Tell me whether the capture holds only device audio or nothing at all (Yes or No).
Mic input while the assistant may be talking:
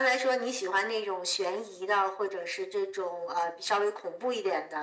Yes